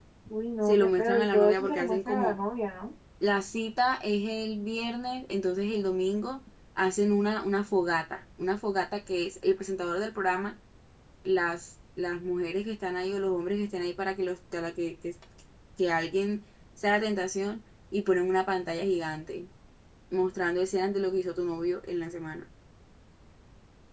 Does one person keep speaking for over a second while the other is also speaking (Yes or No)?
Yes